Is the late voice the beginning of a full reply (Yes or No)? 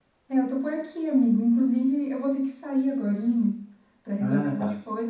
No